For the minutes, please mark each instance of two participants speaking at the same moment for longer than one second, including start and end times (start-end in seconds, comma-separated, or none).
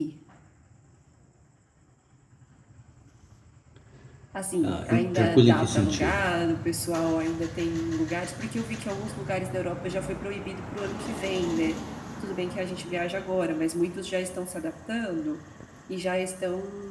4.6-6.2